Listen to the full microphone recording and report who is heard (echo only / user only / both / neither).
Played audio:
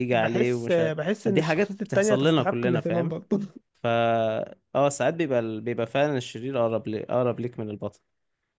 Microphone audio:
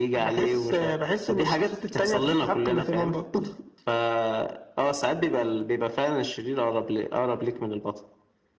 echo only